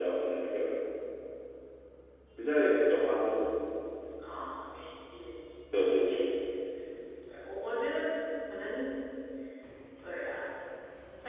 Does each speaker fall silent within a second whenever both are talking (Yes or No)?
Yes